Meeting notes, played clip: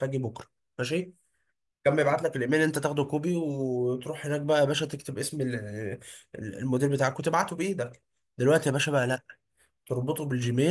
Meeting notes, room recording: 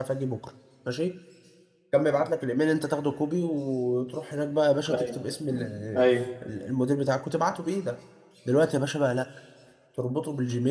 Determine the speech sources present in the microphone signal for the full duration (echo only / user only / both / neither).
both